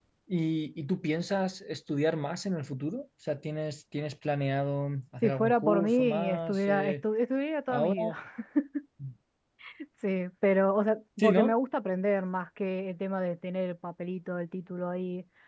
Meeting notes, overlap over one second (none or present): present